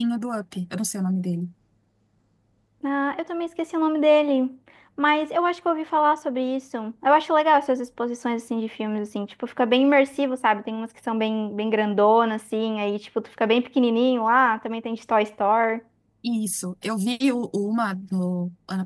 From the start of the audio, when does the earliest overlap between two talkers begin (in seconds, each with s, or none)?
none